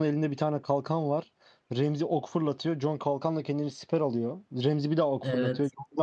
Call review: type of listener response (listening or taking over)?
listening